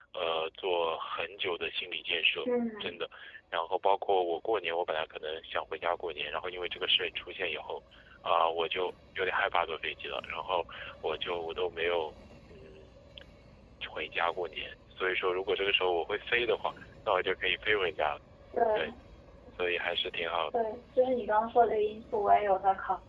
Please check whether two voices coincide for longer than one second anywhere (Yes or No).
No